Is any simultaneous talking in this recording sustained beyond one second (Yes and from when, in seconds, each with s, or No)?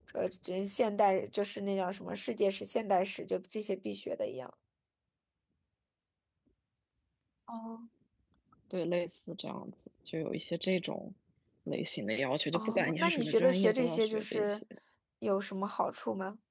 Yes, from 12.5 s